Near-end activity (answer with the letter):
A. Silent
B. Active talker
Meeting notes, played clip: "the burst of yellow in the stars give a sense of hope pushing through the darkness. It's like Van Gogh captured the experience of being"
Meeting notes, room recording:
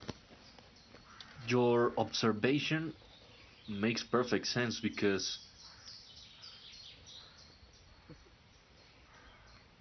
B